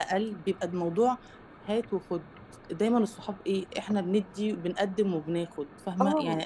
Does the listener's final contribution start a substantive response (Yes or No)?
No